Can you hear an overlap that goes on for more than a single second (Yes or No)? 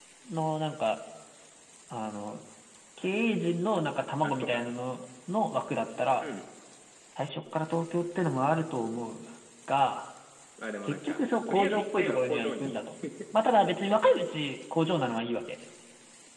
Yes